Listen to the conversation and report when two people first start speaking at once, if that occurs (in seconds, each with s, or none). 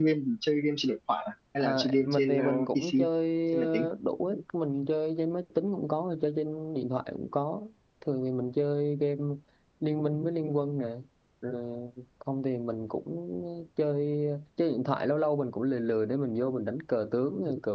1.6 s